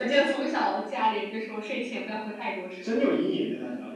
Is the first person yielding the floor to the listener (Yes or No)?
Yes